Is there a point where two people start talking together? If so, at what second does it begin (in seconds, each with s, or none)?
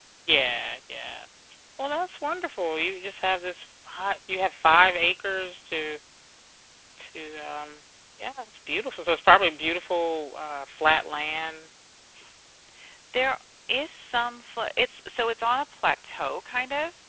none